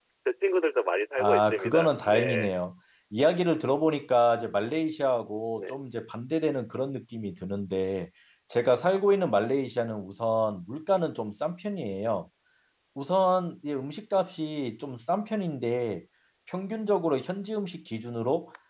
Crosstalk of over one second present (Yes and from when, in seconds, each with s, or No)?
Yes, from 1.2 s